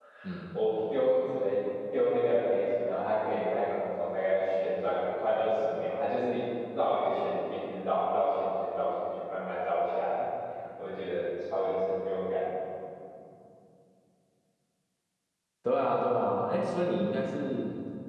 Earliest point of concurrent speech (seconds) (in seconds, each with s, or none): none